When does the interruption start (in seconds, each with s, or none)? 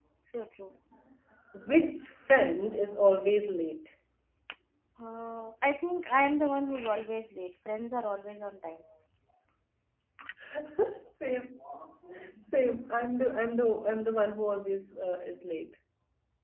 none